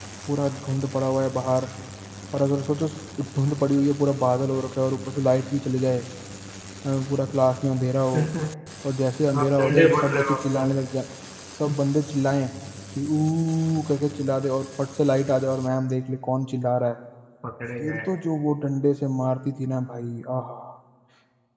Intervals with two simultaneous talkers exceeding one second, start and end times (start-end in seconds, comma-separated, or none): 9.4-10.6